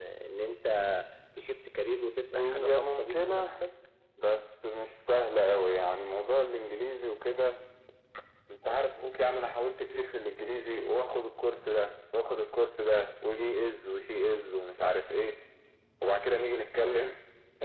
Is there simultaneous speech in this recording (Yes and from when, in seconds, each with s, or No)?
Yes, from 2.3 s